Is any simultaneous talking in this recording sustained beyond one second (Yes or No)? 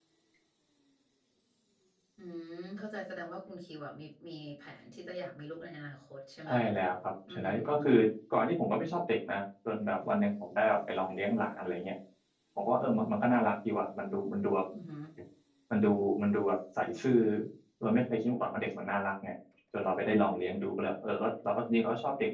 No